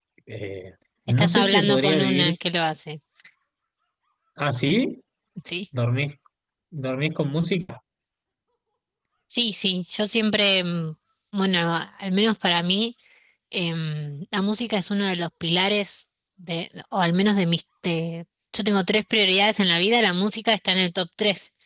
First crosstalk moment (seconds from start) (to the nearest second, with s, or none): 1 s